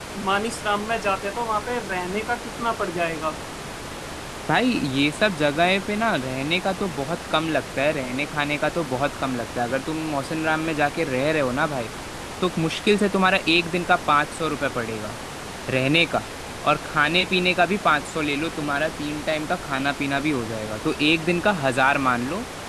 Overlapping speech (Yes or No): No